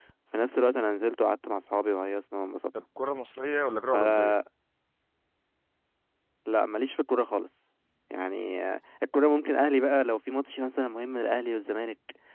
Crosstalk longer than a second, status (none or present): none